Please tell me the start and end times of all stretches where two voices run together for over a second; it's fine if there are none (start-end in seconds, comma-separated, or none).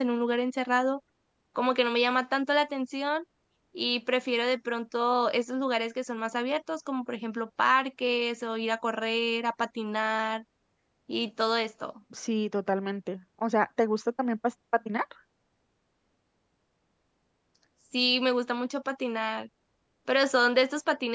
none